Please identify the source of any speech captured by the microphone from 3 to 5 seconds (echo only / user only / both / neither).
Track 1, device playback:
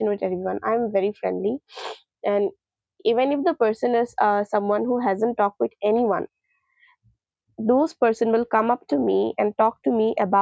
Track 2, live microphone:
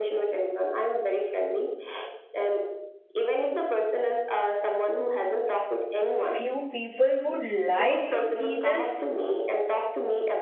echo only